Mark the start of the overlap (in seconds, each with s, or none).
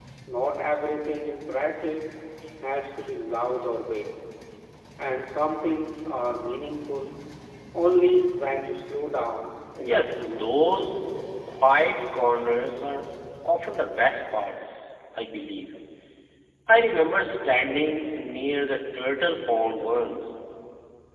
9.8 s